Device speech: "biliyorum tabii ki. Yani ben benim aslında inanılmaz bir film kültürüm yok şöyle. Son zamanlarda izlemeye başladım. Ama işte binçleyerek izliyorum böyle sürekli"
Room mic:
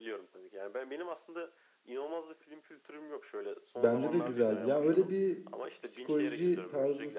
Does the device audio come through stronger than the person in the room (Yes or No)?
No